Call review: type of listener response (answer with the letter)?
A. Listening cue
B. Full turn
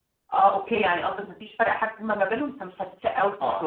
B